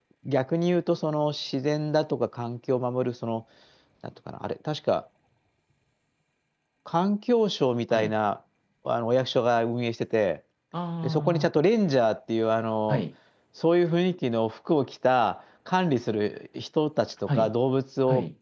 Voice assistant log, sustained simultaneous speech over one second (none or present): none